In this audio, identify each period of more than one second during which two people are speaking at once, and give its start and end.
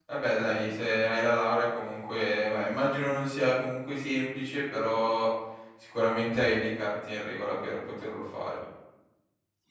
none

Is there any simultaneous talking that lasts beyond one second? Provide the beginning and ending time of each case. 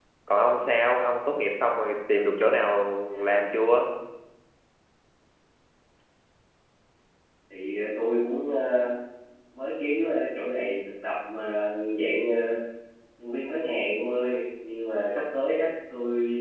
none

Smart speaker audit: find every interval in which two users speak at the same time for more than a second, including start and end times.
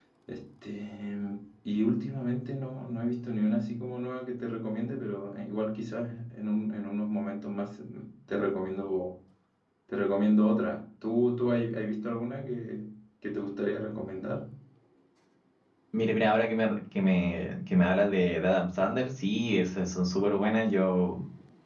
none

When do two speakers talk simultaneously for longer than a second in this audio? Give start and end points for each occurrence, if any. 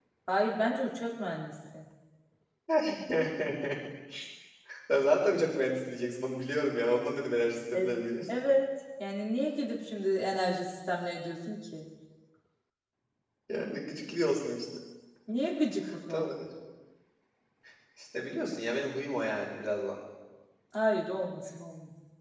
none

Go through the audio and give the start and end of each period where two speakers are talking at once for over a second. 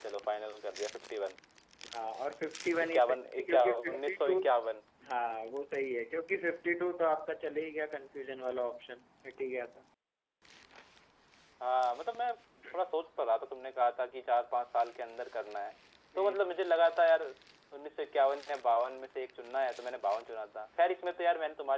2.8-4.4

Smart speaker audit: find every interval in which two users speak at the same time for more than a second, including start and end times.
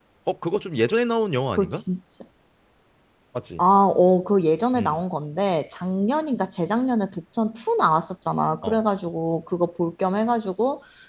none

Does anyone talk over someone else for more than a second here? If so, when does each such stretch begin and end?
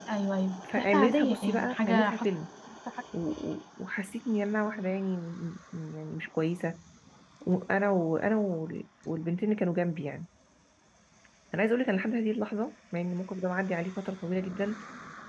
0.8-2.3

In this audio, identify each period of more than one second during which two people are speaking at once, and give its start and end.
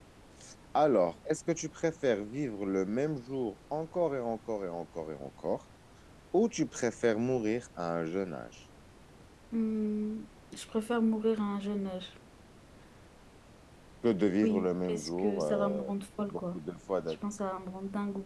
14.4-15.9

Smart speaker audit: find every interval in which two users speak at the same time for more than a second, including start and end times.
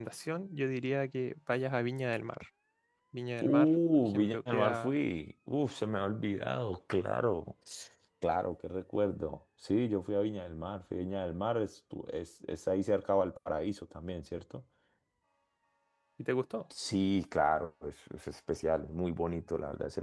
3.4-5.0

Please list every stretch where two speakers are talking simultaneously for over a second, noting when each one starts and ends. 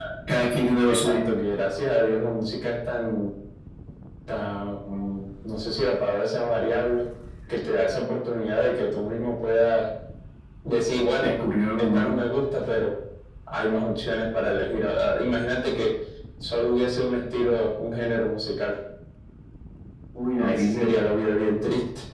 none

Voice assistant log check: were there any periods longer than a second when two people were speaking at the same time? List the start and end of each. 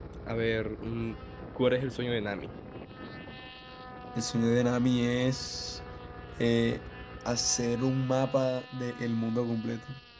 none

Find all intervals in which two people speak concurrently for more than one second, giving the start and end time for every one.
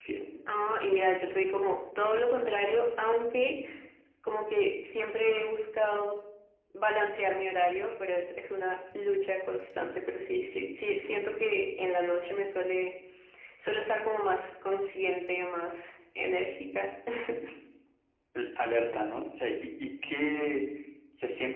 none

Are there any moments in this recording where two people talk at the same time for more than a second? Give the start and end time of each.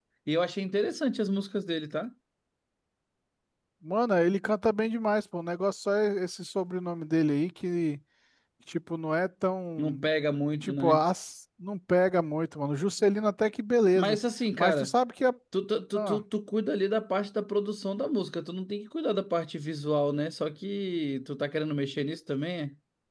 none

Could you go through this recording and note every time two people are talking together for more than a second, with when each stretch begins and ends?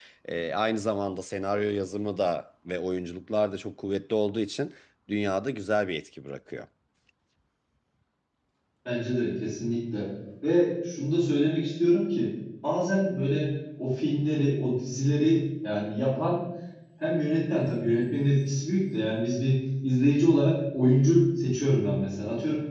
none

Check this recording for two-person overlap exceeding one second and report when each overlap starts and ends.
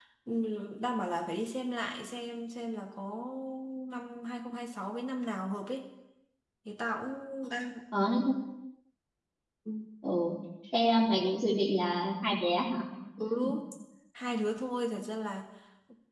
none

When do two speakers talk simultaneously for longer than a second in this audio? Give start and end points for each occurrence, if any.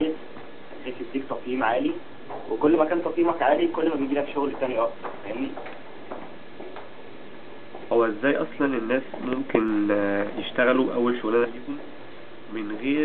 none

